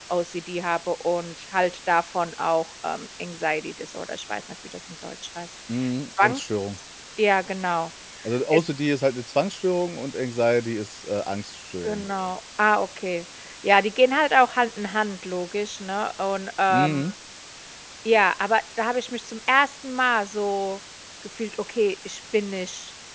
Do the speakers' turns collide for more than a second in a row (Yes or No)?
No